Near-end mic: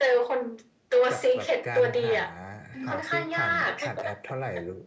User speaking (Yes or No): Yes